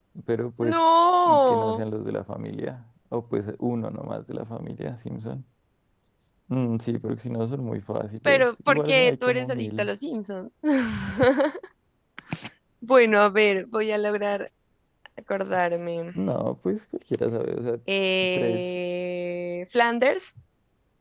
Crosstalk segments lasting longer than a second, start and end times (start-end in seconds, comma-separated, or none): 8.2-9.9